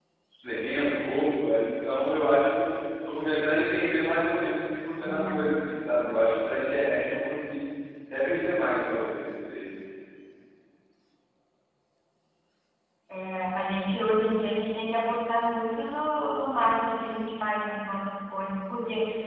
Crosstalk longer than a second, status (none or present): none